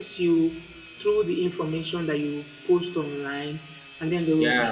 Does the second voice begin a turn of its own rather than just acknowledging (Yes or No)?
No